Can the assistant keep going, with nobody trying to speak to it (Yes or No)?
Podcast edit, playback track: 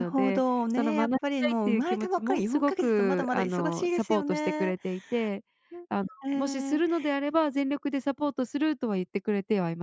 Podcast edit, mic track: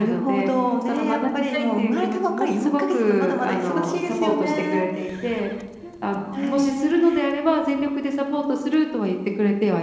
No